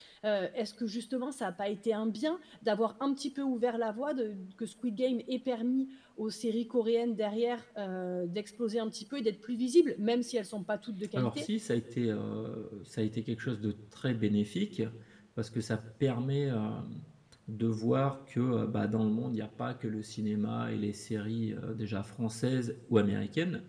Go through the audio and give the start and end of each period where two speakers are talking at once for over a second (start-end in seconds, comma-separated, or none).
none